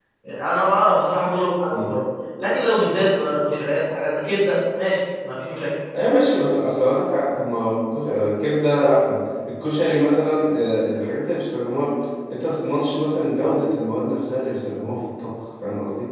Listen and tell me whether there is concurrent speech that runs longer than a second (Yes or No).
No